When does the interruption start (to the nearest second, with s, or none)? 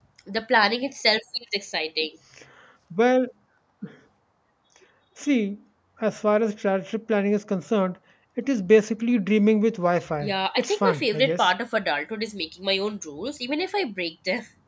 10 s